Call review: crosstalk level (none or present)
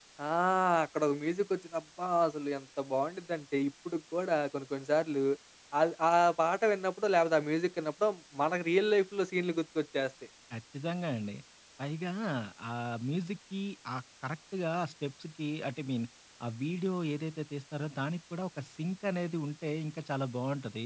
none